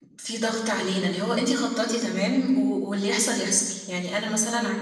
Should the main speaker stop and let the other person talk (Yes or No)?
No